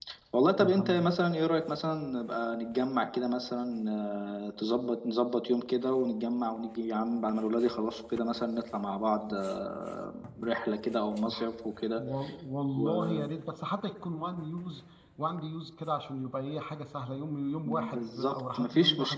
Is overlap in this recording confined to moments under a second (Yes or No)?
No